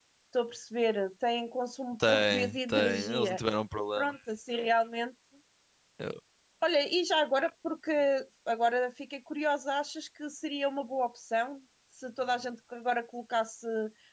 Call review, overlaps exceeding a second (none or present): present